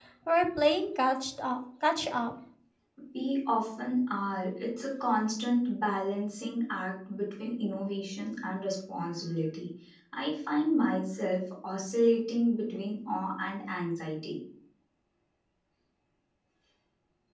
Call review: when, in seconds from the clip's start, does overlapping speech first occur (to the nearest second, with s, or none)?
none